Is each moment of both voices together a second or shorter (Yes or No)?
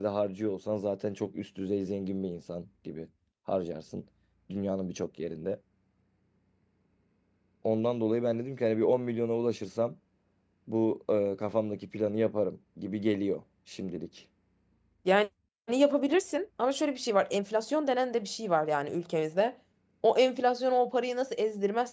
Yes